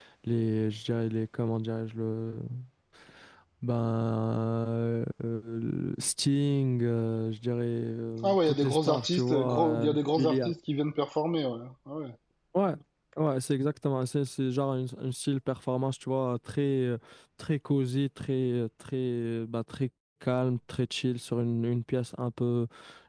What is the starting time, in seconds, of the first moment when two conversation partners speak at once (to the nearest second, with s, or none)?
8 s